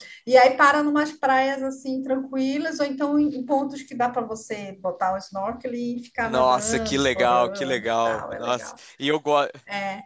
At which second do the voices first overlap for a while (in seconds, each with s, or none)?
6.2 s